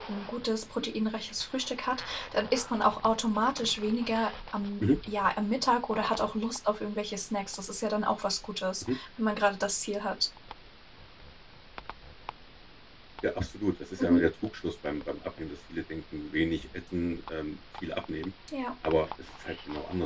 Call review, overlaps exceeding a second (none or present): none